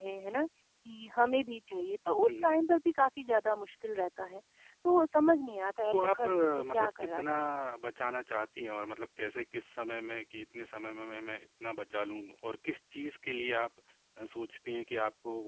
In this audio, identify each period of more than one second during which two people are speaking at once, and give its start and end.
5.9-7.3

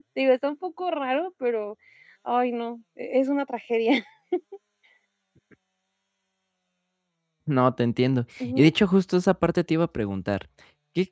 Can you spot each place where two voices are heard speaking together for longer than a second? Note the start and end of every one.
none

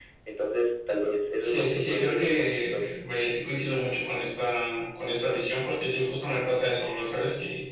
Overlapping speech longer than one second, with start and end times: 1.4-2.9

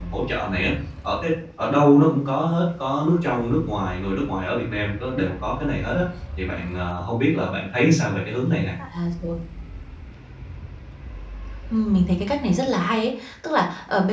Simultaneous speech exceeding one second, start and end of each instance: none

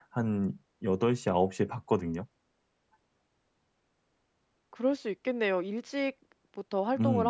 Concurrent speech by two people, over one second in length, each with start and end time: none

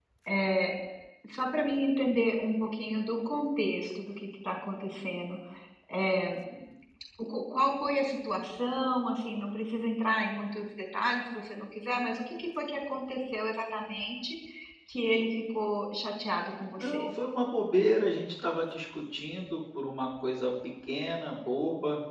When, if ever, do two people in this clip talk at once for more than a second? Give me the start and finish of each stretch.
none

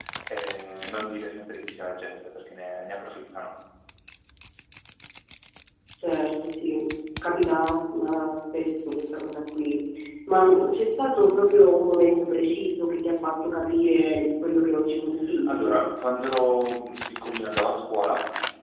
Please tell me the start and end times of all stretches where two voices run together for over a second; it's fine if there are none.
none

